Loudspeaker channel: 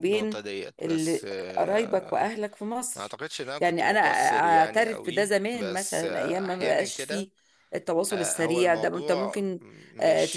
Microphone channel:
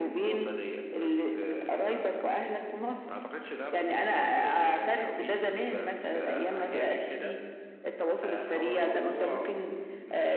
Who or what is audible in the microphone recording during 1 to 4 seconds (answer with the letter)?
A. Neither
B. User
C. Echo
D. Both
C